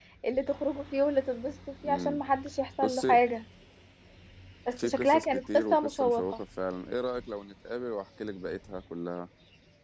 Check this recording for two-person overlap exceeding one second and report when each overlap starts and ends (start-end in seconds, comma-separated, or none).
4.7-6.4